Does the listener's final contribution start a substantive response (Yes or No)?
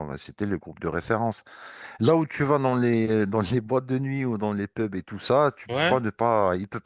No